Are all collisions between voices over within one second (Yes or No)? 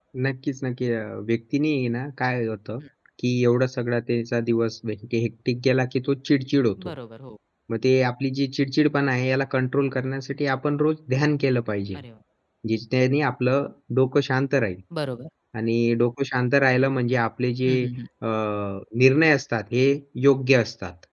Yes